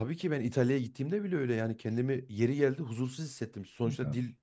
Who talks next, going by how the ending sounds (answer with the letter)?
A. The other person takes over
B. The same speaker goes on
B